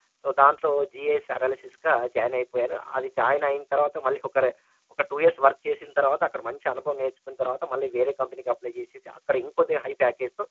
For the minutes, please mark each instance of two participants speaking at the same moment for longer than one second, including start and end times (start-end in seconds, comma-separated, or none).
none